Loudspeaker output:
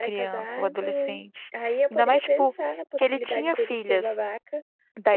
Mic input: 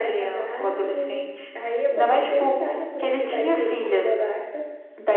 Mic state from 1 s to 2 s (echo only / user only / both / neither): echo only